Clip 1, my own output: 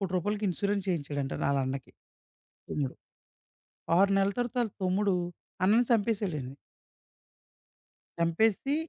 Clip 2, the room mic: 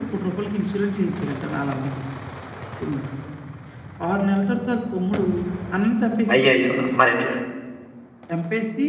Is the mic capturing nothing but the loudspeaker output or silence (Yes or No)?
No